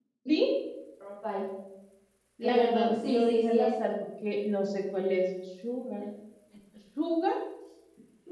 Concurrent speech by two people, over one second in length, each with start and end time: 2.4-3.7

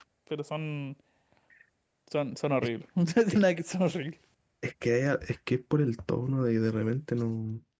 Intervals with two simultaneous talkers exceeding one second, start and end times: none

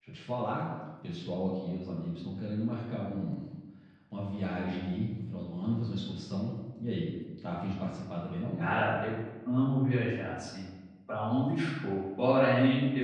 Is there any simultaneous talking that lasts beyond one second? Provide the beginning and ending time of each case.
none

